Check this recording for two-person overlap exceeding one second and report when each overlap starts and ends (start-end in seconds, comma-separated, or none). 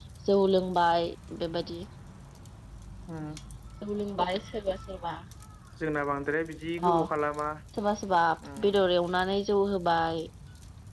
none